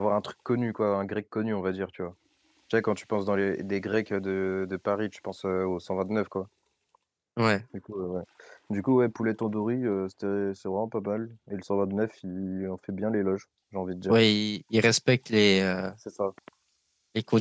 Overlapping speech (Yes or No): No